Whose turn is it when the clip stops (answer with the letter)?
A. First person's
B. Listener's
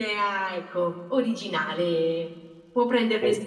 B